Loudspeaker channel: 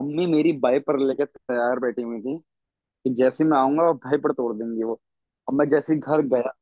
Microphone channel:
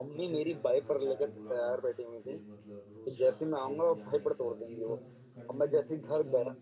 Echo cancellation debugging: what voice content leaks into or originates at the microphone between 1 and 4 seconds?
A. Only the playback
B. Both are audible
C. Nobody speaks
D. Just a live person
B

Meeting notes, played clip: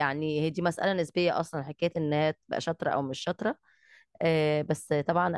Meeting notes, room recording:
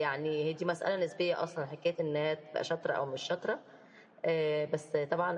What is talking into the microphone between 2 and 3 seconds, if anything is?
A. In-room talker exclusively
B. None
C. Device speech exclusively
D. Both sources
C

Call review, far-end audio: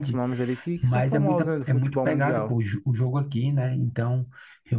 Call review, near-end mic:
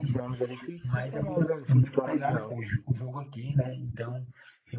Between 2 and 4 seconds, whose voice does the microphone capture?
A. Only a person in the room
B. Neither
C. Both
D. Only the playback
D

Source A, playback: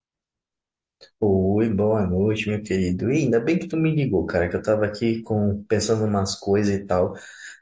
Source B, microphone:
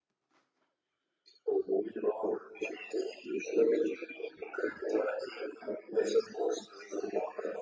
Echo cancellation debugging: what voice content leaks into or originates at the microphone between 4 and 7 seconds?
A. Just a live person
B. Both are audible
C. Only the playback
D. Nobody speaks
C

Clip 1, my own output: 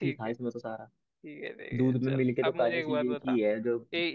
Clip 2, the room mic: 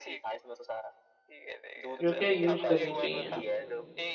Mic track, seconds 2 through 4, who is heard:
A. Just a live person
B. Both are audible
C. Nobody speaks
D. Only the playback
B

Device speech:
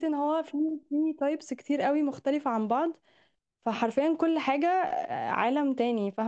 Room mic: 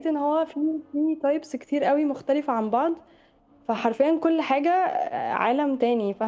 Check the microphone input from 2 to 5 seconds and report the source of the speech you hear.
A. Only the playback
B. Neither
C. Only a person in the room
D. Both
A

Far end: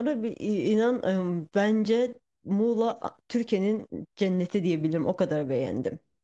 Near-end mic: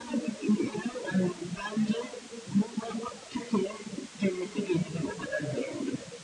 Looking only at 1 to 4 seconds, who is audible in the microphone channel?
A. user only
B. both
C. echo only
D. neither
C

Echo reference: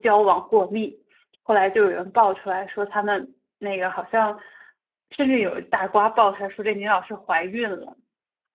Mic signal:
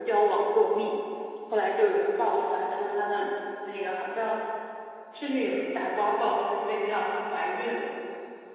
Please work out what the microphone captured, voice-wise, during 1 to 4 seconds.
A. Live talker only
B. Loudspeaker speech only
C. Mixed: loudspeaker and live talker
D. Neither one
B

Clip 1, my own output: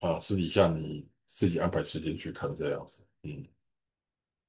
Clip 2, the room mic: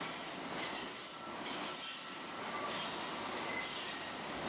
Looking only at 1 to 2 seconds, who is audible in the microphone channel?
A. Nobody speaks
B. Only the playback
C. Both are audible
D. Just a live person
A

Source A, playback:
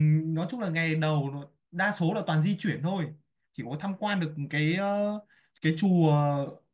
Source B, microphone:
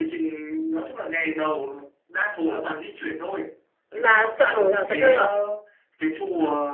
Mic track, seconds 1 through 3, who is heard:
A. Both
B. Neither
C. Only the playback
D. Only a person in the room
C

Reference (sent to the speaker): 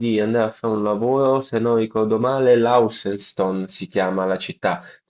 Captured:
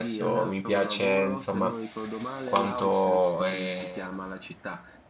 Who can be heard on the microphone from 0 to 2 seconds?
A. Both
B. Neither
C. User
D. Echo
A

